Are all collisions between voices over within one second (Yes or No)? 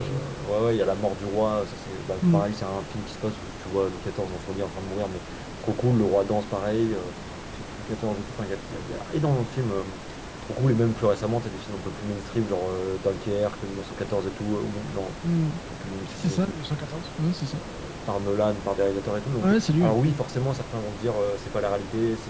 Yes